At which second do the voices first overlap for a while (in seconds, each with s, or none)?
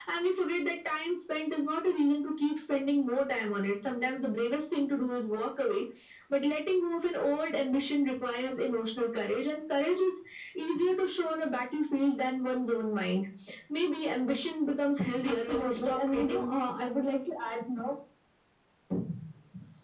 15.2 s